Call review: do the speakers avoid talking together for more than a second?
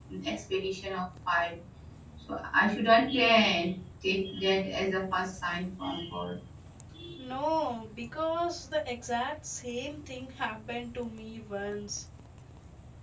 Yes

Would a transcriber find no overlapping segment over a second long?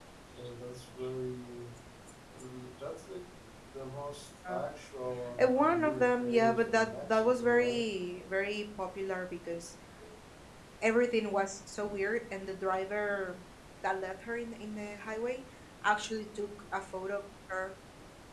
No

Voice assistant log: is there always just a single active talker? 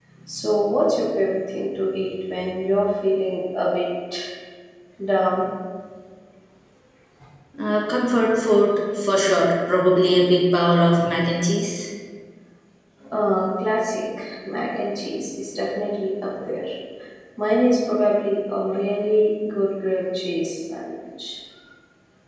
Yes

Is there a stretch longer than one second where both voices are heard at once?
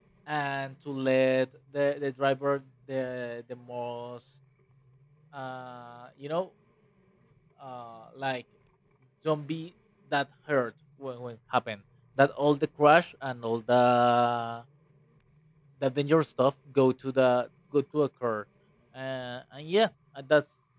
No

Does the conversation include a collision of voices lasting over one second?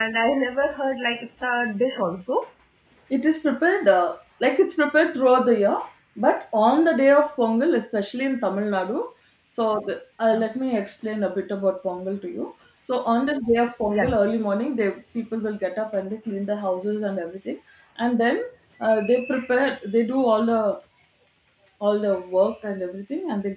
No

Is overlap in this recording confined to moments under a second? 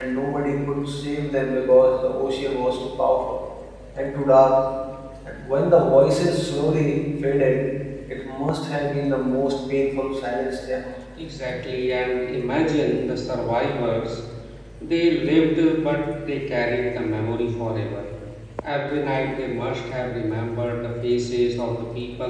Yes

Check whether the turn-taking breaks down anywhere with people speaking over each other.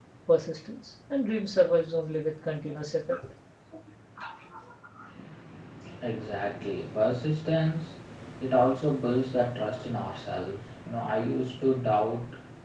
No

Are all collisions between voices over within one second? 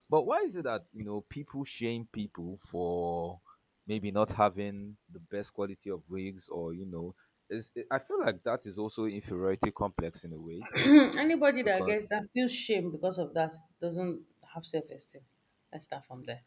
Yes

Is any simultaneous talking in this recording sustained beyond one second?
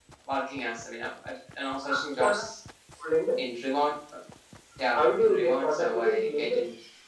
Yes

